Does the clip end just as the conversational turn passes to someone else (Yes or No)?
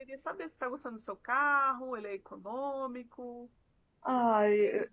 Yes